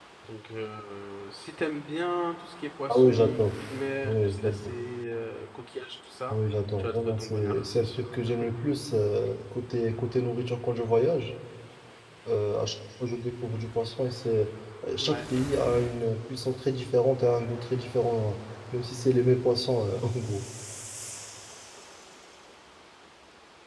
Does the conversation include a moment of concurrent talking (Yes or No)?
Yes